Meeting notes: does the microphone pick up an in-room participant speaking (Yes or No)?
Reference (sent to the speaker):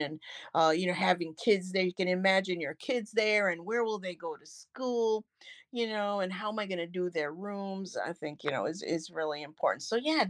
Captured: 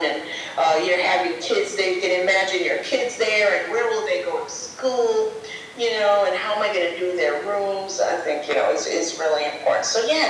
No